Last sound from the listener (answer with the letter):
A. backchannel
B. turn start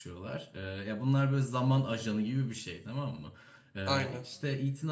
A